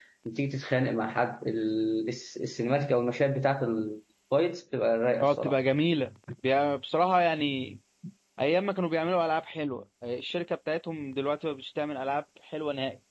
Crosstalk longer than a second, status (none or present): none